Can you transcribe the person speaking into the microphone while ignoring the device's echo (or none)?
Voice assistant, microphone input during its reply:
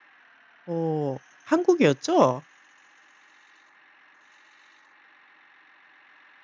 어 한국이었죠?